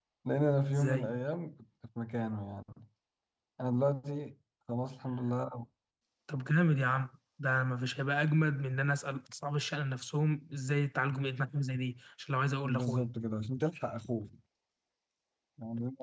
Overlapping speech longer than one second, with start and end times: none

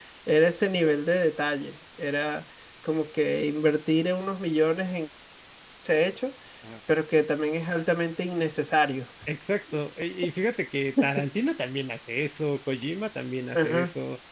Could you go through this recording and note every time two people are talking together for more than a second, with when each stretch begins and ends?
none

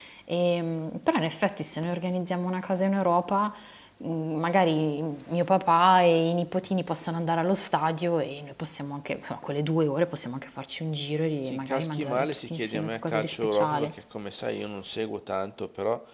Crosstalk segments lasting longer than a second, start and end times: 11.5-14.0

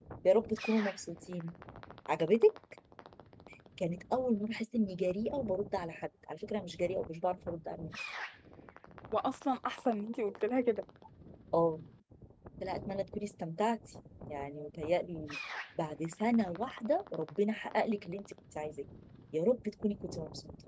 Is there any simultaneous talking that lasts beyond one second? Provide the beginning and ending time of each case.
none

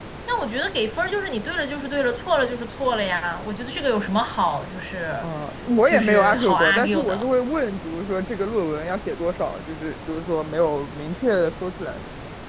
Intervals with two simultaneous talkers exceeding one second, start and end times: 5.9-7.3

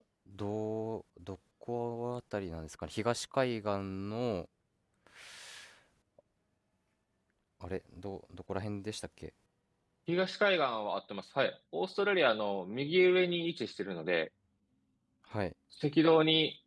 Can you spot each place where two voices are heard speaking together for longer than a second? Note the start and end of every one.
none

